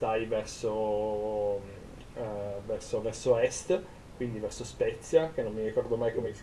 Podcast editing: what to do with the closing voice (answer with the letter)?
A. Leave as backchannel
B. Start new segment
A